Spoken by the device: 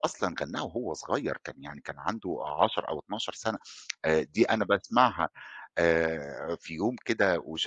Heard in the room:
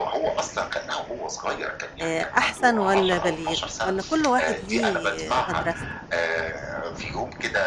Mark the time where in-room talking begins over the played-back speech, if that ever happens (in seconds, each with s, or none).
2.0 s